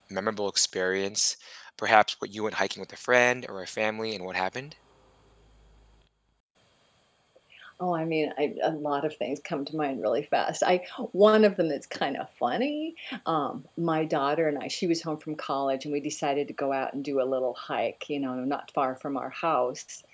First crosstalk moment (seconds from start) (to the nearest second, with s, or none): none